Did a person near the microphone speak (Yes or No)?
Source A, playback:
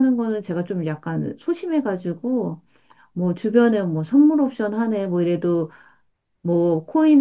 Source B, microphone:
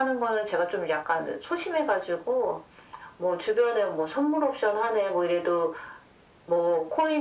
No